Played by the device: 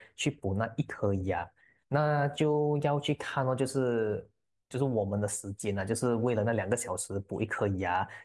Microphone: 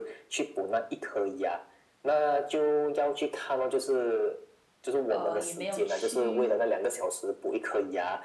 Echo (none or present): present